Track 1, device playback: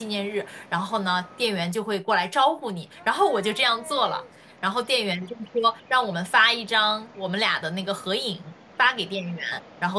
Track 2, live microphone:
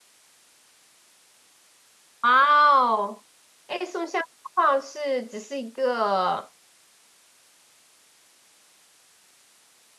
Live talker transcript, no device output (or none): 哇哦，哎，送相框是只是一个，